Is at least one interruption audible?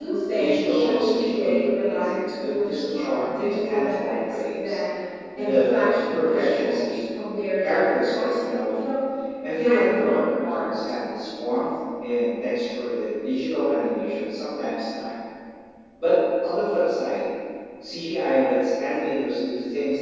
Yes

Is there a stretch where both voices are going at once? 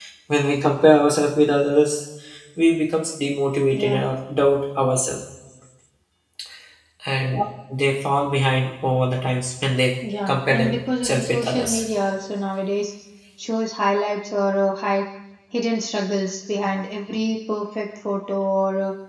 Yes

